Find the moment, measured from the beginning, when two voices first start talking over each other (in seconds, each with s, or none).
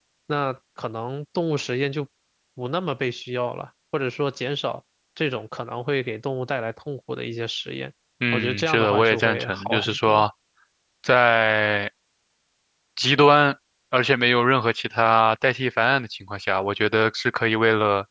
8.3 s